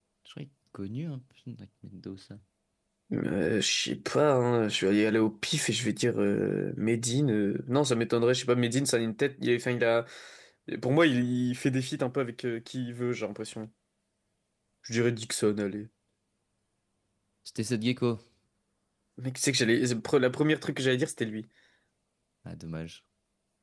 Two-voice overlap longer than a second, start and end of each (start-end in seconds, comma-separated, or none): none